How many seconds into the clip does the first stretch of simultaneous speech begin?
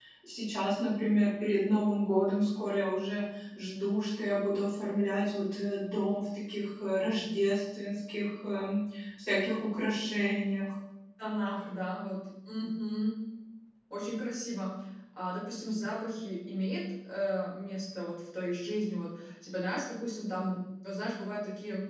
none

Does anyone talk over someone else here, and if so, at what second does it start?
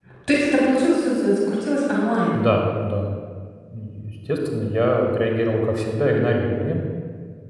none

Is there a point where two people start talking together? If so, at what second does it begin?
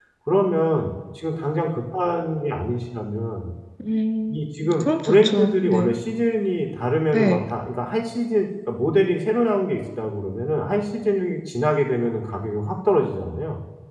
4.3 s

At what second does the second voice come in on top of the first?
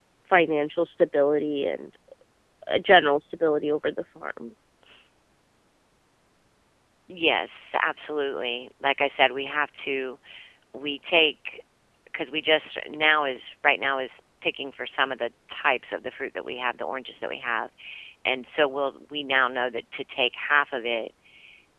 none

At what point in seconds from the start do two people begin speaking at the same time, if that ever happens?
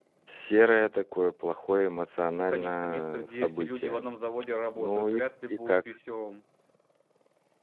2.4 s

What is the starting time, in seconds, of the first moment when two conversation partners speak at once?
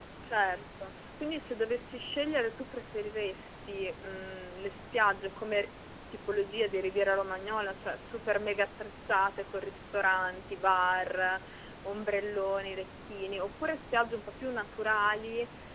none

